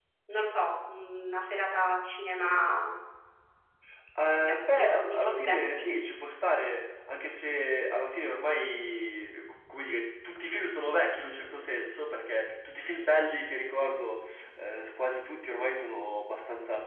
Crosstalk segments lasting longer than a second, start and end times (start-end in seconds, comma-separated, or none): 4.3-5.9